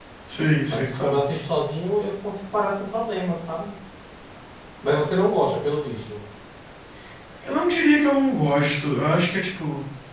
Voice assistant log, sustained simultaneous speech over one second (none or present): none